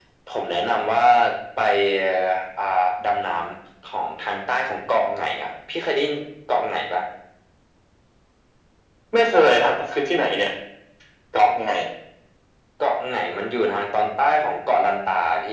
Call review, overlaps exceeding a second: none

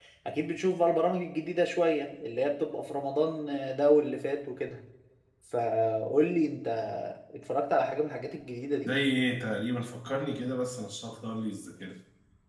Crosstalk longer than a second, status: none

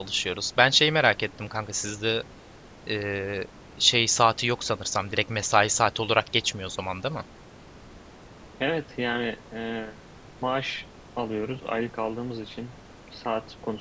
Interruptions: none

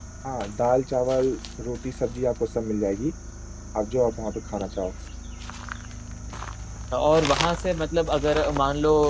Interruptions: none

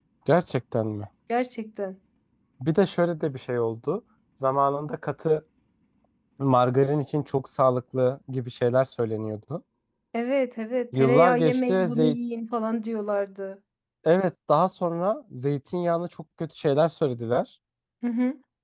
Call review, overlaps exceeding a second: present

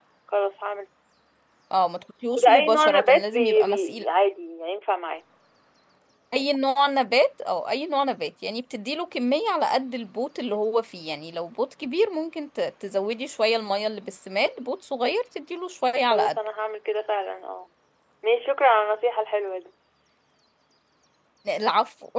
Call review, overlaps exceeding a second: present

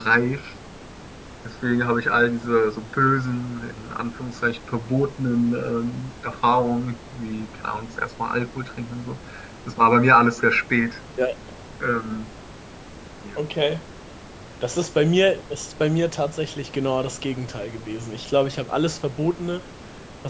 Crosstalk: none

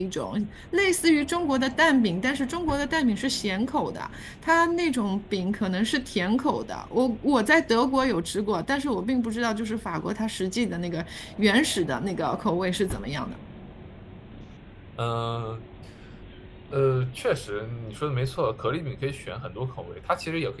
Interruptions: none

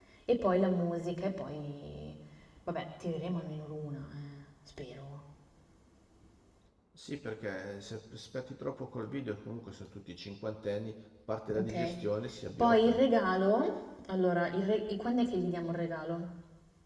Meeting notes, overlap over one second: none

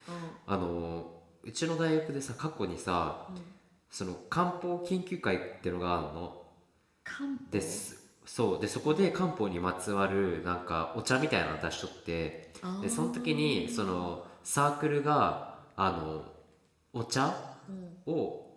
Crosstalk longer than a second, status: present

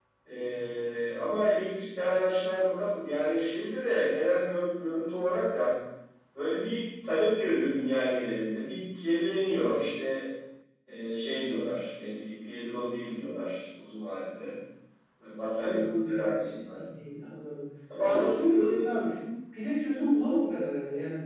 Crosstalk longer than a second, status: present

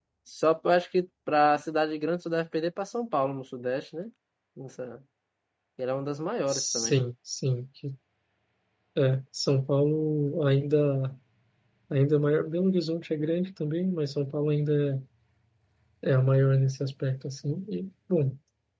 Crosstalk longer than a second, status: none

